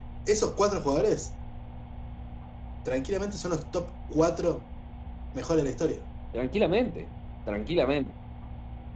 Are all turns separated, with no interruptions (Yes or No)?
Yes